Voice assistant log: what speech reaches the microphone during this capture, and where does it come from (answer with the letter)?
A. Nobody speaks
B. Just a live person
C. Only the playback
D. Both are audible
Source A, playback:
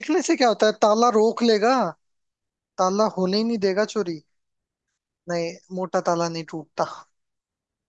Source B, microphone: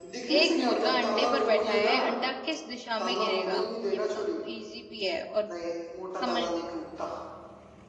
D